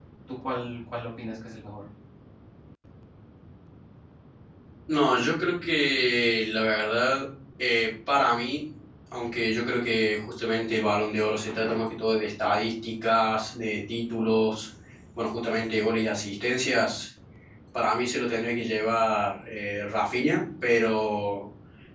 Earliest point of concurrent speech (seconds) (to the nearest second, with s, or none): none